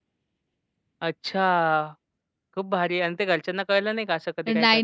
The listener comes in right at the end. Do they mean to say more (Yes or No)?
Yes